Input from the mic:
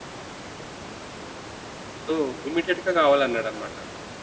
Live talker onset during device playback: 2.1 s

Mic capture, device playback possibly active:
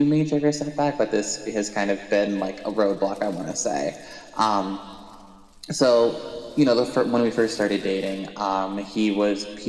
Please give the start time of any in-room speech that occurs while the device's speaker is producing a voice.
none

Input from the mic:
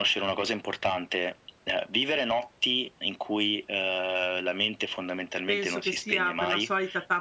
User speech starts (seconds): 5.4 s

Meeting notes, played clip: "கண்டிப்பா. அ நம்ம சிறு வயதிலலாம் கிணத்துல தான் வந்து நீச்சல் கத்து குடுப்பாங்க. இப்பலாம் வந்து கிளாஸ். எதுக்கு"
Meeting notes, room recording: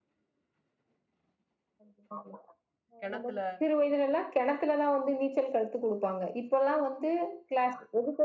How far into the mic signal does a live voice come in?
3.0 s

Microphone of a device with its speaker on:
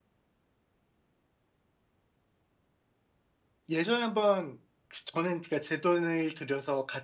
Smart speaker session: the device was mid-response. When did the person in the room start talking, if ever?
3.7 s

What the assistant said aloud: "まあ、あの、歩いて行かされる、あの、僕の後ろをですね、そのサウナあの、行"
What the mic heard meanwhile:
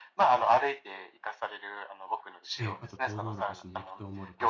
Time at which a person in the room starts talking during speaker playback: 2.6 s

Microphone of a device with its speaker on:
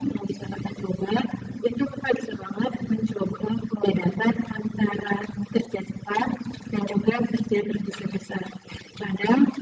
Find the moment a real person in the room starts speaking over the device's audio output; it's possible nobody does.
none

